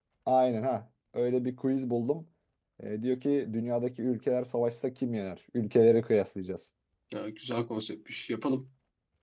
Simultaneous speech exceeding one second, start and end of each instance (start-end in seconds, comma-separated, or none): none